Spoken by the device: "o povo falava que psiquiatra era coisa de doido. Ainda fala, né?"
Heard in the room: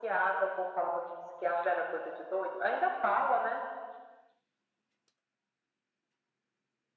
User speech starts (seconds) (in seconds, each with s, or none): none